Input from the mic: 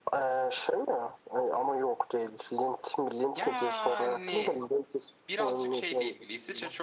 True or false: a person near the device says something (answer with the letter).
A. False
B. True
B